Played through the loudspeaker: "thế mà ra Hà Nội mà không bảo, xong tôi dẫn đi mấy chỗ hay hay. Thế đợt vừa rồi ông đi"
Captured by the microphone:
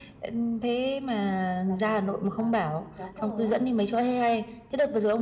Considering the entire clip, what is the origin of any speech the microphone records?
both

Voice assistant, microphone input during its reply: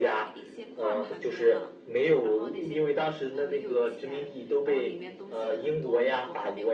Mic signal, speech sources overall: both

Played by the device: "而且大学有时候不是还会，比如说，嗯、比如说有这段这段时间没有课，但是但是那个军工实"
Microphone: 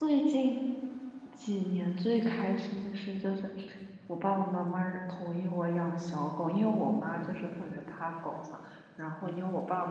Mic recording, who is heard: user only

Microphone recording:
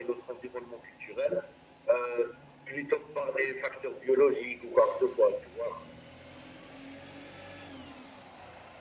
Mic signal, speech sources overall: echo only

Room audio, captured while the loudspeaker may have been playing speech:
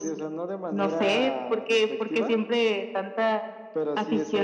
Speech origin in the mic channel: echo only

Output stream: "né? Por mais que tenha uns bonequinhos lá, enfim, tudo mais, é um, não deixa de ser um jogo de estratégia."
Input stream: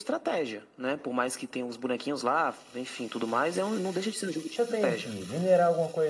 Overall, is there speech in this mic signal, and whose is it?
both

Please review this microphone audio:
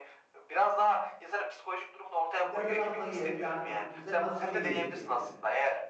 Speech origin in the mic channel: both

